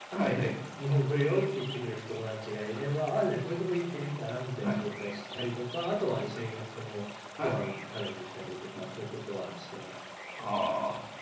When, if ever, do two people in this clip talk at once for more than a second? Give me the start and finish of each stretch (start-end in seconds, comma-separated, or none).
none